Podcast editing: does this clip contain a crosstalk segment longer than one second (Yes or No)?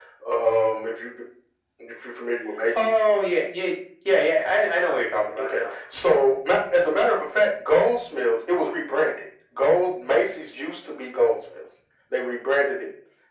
No